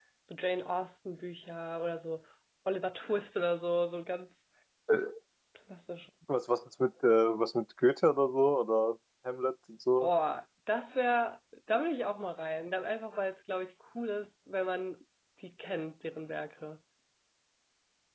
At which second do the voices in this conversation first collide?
none

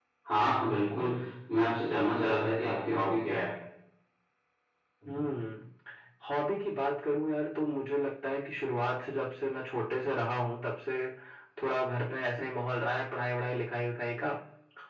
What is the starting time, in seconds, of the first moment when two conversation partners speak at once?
none

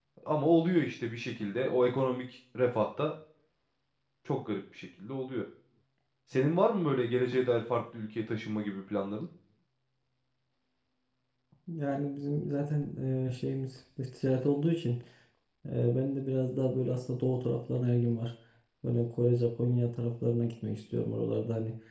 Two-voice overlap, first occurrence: none

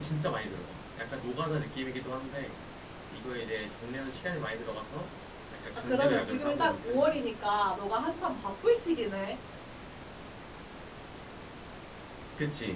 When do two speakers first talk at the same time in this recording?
5.8 s

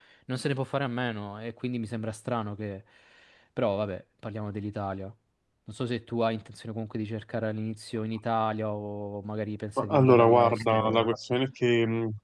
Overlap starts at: 9.8 s

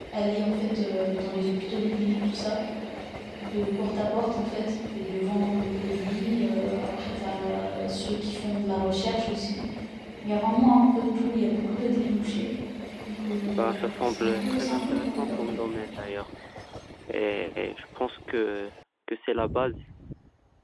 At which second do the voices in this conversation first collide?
13.6 s

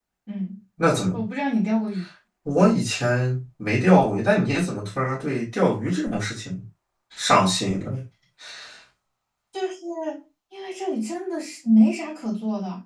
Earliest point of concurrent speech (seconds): none

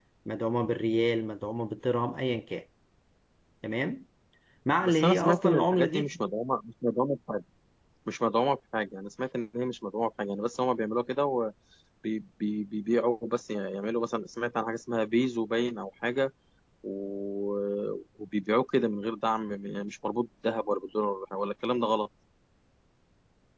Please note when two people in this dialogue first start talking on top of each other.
4.8 s

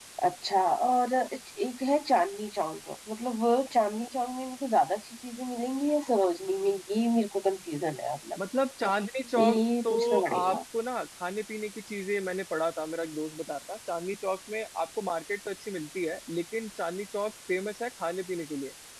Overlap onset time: 9.4 s

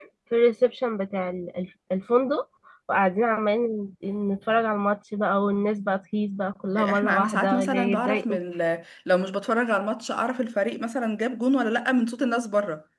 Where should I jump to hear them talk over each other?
6.8 s

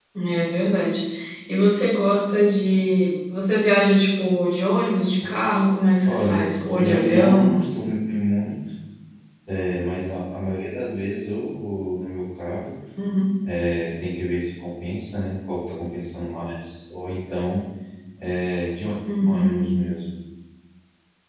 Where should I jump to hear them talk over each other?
6.0 s

